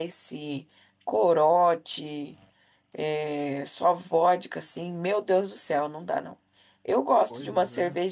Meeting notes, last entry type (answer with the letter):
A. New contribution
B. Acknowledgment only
B